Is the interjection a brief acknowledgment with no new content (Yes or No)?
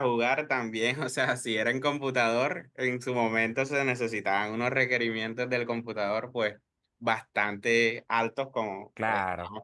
Yes